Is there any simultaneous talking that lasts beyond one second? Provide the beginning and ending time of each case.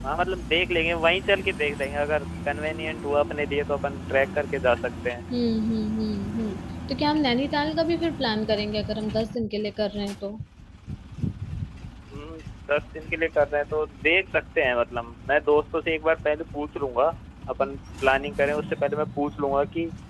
none

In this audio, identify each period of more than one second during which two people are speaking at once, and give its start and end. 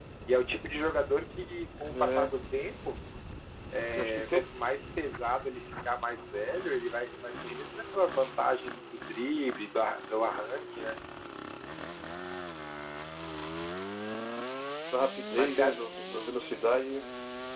none

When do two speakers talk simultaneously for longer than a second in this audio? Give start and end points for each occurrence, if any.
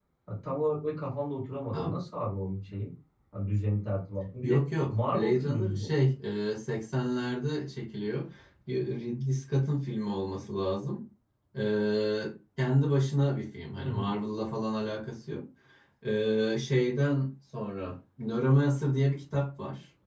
4.4-5.9

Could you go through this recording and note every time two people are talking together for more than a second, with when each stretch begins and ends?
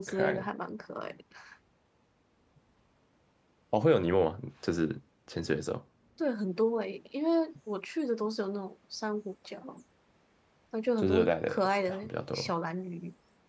11.0-12.5

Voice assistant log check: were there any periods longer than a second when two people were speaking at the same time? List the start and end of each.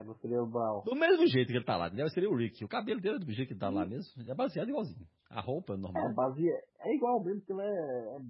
none

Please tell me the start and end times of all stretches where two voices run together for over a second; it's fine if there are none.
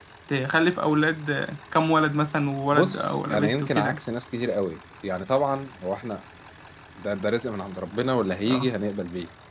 2.7-4.0

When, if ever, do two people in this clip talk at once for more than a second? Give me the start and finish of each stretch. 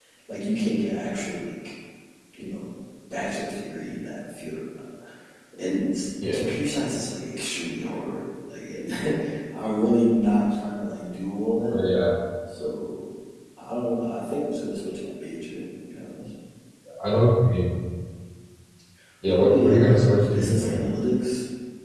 19.3-20.8

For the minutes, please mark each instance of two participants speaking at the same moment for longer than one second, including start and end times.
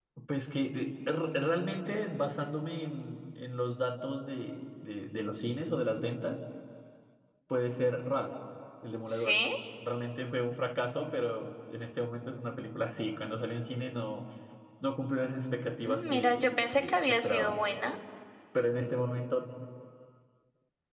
15.9-17.6

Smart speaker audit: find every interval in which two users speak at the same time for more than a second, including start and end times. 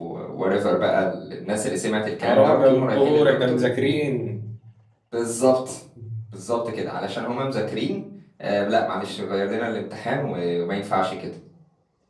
2.2-3.6

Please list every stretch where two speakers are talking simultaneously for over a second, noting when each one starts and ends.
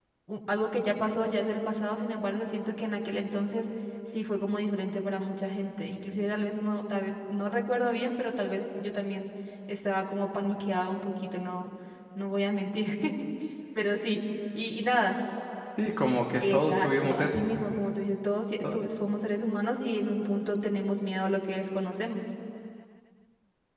16.4-17.6

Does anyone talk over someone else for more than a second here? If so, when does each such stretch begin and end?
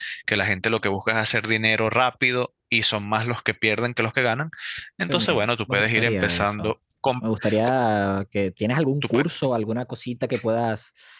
5.1-6.7

